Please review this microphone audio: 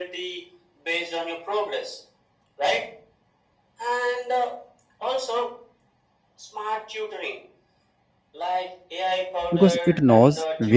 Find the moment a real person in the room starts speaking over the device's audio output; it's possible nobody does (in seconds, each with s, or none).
9.5 s